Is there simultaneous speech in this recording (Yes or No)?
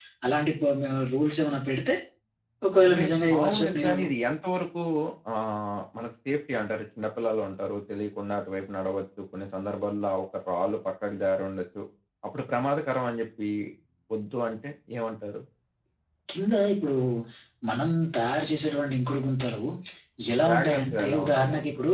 Yes